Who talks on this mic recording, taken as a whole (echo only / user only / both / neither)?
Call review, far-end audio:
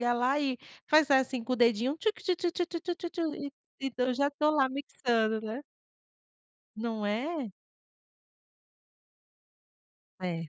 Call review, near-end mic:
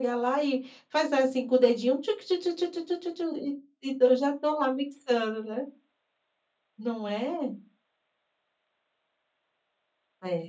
echo only